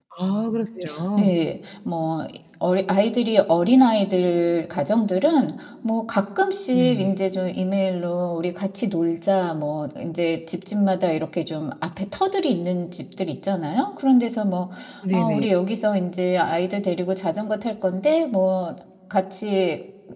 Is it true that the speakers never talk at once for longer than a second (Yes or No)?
Yes